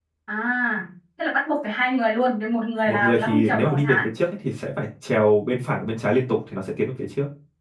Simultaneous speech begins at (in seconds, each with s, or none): 2.9 s